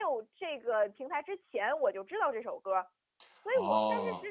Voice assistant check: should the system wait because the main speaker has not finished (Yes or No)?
Yes